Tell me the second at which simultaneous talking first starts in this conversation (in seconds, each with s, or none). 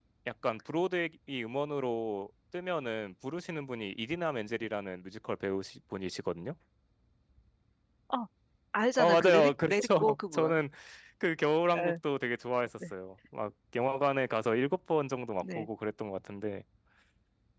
9.0 s